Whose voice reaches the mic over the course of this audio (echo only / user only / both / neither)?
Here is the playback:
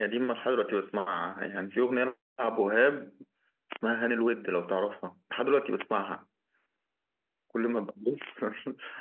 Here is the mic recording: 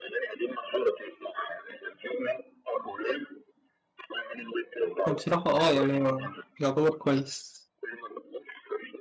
both